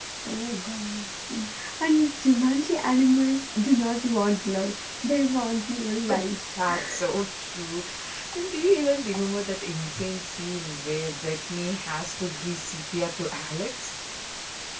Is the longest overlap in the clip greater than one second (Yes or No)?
No